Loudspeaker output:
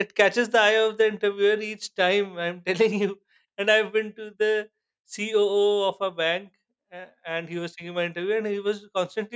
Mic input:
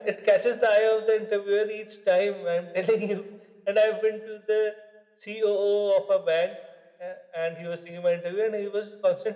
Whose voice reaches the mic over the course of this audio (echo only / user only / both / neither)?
echo only